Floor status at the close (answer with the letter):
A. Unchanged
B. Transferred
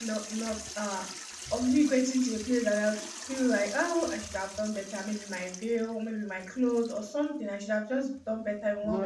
B